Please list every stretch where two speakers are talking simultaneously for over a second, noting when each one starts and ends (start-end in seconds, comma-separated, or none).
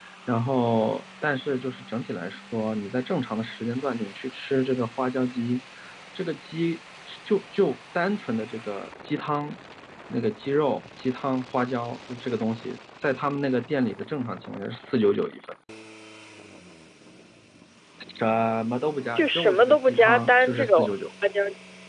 19.2-20.9